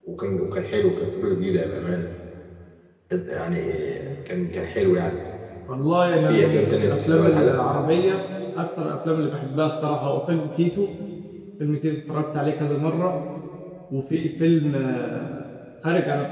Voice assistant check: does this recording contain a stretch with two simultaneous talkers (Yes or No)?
Yes